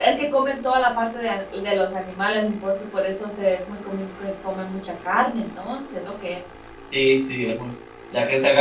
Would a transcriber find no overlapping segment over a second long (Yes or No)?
Yes